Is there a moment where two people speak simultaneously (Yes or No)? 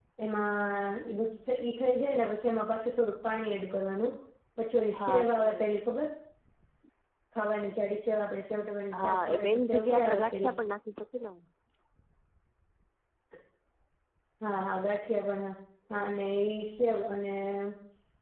Yes